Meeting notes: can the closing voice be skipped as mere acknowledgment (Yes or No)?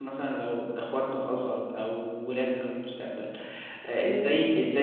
Yes